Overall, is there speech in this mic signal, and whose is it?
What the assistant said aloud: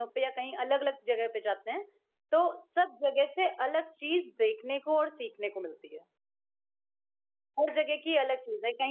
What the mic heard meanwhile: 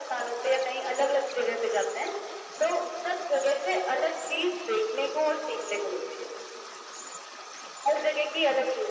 echo only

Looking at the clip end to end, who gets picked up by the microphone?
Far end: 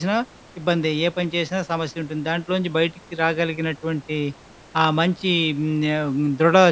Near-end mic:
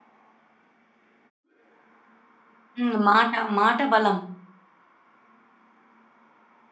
user only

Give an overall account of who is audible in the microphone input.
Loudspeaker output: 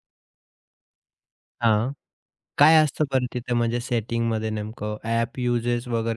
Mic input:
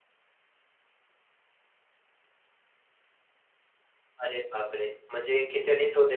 user only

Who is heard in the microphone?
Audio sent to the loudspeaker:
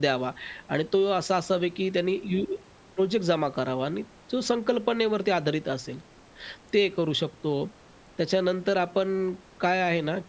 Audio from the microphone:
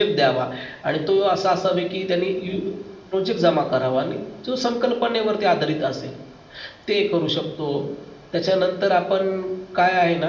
echo only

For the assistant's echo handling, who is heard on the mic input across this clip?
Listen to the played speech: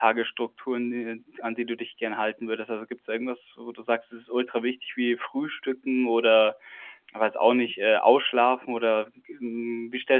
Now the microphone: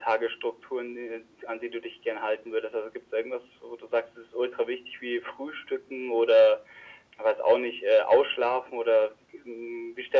echo only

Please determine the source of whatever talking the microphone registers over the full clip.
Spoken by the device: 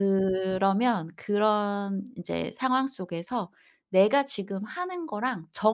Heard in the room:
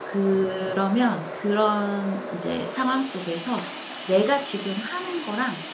echo only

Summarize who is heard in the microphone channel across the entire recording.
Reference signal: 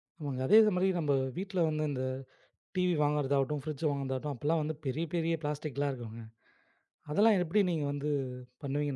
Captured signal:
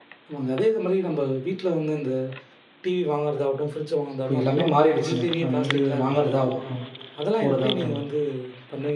both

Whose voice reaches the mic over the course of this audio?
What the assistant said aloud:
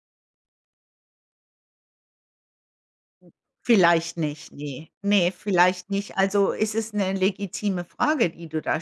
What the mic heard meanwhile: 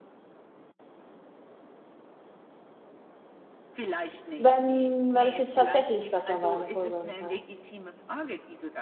both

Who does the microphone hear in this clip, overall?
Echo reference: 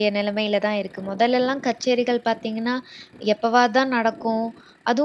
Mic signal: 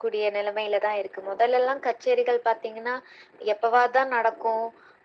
echo only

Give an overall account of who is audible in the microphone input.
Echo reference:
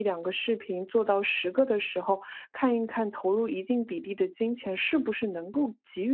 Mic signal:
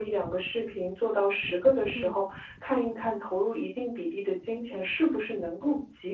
both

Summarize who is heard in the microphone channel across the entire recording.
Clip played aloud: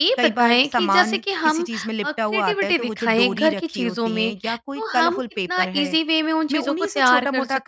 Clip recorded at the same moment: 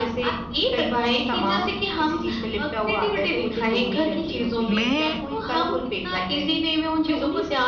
both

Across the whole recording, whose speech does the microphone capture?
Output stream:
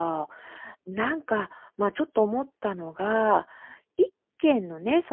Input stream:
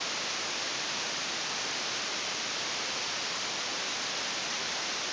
neither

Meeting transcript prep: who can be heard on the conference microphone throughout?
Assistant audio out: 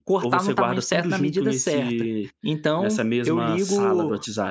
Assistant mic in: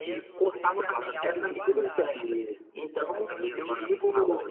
both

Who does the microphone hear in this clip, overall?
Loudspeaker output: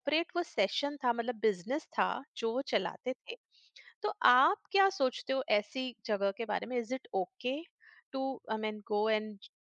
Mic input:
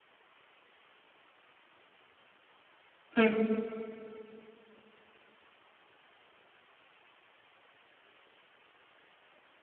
user only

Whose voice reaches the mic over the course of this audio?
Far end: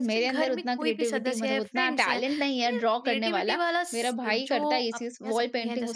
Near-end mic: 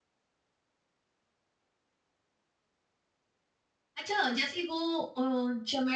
user only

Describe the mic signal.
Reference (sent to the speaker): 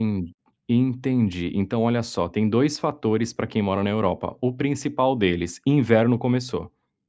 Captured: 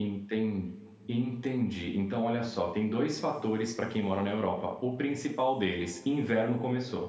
echo only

